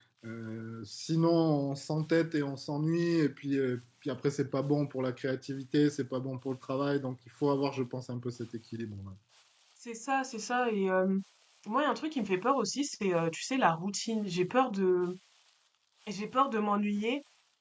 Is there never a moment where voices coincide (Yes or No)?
Yes